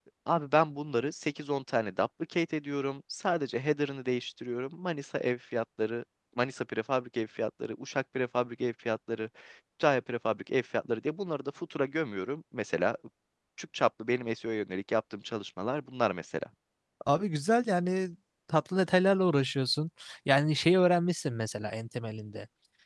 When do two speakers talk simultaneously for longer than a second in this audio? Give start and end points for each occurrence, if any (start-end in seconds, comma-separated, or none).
none